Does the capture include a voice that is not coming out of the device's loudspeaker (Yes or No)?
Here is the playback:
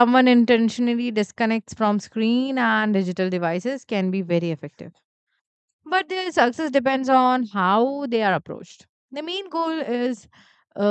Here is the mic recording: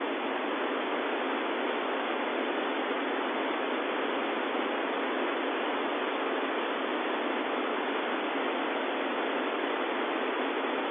No